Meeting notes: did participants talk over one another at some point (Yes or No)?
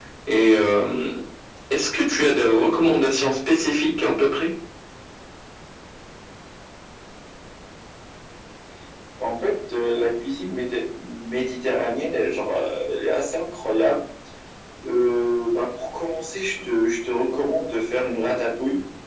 No